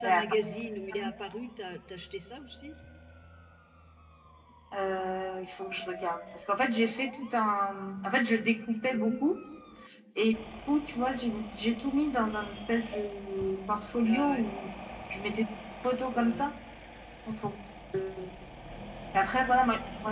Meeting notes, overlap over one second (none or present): none